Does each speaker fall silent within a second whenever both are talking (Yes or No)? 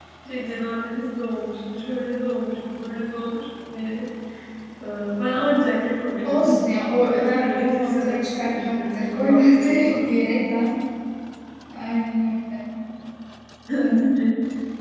No